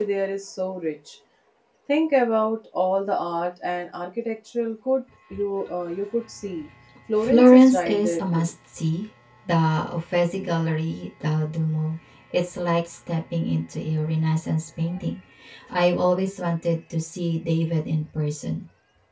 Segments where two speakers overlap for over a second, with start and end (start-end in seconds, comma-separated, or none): 7.2-8.5